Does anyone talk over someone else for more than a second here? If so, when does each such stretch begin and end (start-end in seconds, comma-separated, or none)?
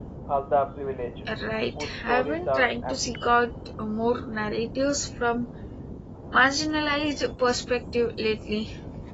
1.8-3.4